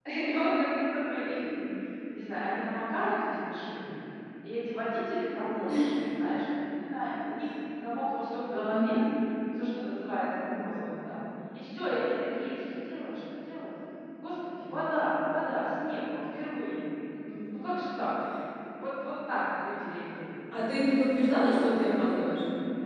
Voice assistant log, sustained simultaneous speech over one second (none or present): none